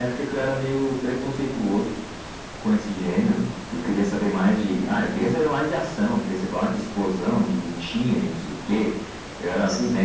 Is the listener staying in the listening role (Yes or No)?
Yes